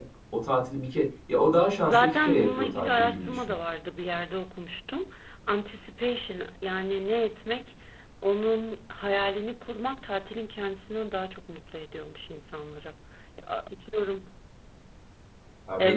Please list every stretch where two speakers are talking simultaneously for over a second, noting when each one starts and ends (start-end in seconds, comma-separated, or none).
1.9-3.5